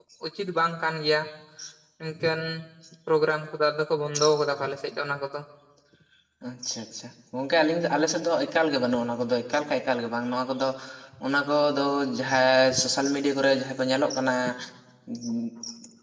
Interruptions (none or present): none